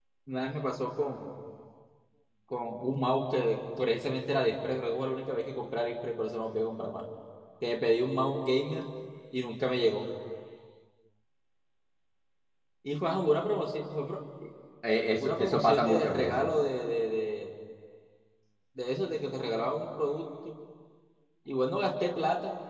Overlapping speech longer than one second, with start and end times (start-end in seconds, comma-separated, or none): 15.2-16.4